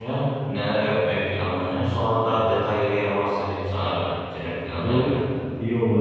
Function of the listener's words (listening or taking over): taking over